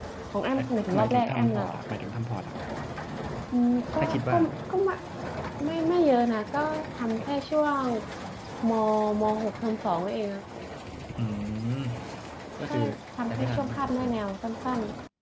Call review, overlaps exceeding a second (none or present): present